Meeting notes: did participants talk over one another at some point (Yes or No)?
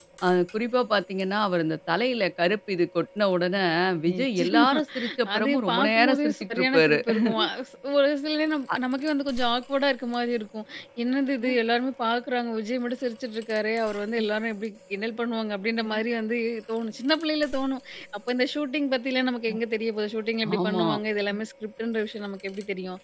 Yes